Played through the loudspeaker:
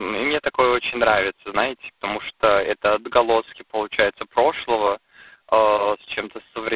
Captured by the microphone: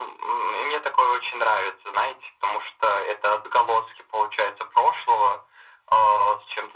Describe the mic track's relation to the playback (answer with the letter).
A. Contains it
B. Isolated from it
A